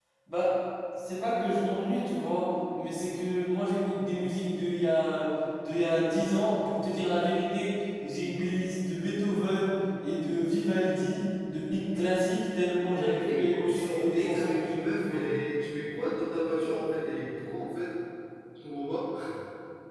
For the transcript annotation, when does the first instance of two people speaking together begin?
12.9 s

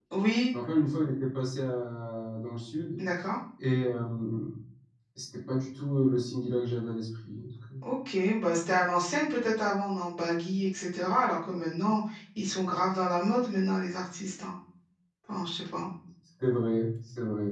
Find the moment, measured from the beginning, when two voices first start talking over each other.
none

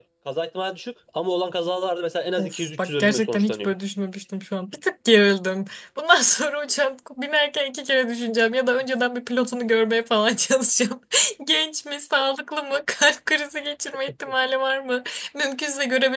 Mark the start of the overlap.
2.4 s

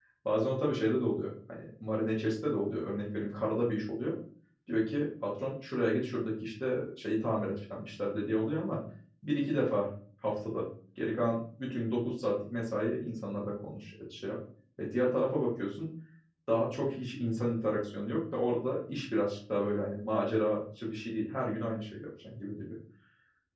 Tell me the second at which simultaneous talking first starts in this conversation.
none

